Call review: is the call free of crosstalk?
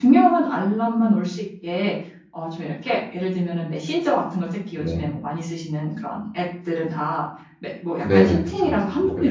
No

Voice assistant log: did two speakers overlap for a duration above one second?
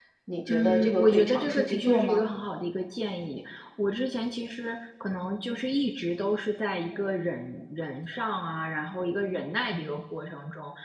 Yes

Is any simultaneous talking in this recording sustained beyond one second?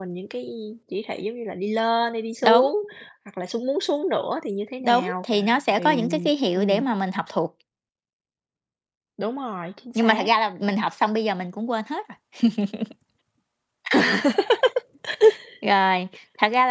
No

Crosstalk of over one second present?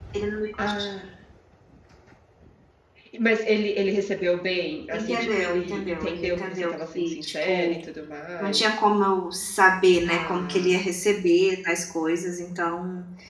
Yes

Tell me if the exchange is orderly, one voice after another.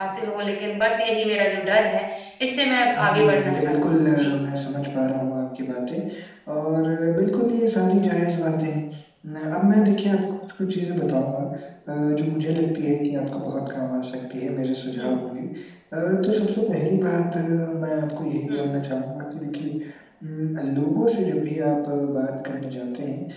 No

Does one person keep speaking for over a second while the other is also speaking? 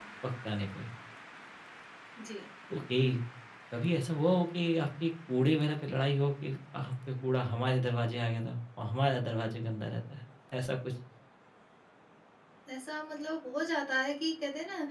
No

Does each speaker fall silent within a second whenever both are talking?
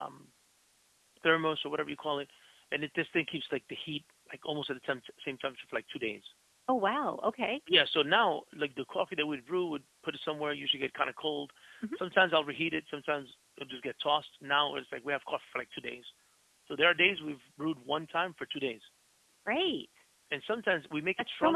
Yes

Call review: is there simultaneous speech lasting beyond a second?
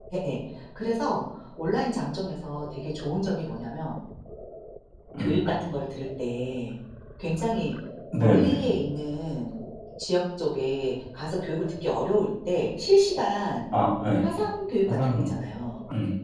No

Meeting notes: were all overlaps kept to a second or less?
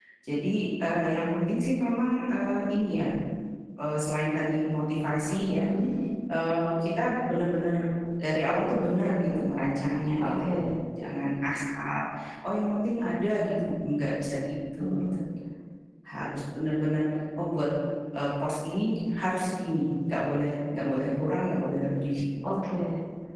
Yes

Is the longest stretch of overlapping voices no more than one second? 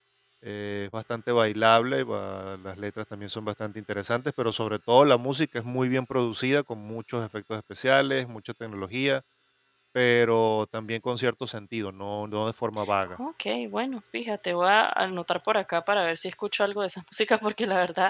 Yes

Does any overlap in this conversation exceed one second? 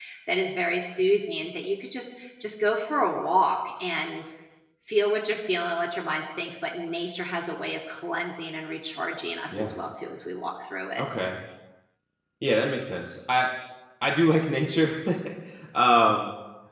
No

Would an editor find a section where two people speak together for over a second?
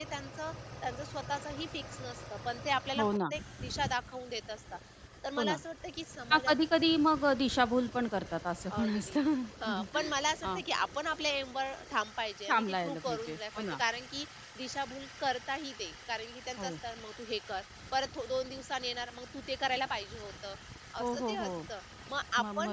Yes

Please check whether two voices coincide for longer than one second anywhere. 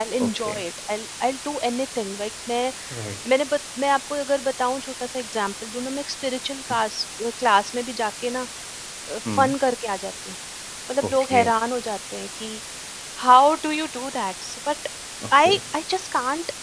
No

